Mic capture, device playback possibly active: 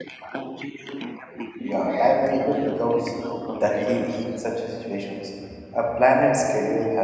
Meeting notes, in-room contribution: present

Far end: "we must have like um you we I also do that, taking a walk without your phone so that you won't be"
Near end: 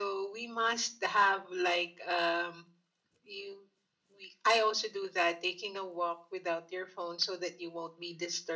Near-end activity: none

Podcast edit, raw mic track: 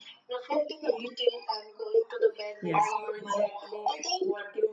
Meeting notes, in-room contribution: present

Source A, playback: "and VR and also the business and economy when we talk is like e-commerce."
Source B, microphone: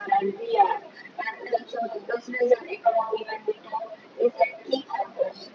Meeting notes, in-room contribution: none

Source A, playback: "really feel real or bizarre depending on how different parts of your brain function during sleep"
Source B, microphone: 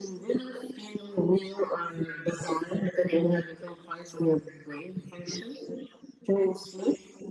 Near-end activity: none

